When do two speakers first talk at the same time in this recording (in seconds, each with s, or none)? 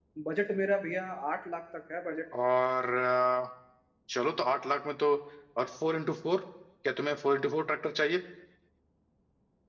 none